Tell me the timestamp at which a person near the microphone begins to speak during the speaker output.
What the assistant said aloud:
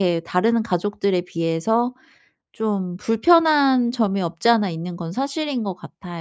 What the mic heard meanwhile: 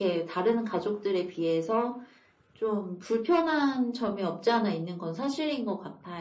none

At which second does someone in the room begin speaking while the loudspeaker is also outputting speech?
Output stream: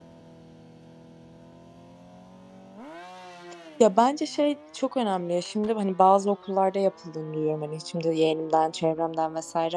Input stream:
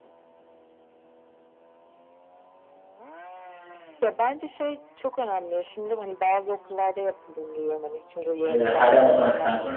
8 s

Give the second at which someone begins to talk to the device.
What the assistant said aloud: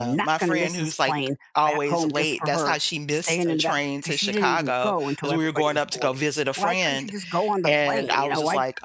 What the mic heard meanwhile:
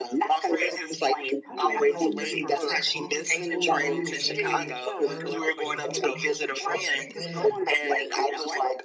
1 s

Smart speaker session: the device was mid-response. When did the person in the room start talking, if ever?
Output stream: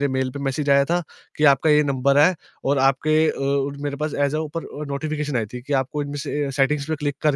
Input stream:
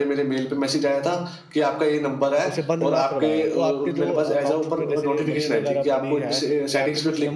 3 s

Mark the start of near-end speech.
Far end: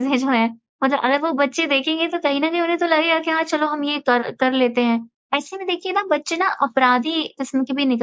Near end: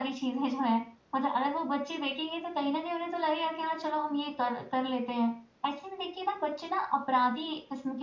none

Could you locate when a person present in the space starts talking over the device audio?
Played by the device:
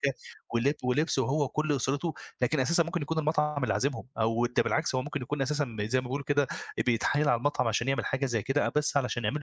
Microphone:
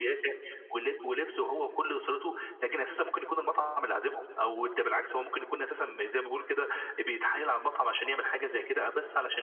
none

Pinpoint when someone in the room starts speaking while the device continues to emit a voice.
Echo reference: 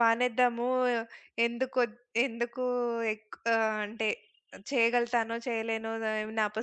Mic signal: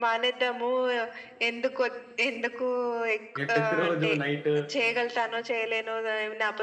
3 s

